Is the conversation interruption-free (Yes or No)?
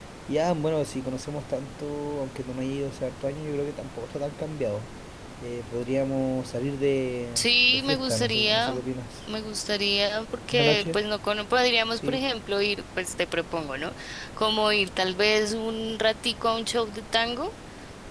No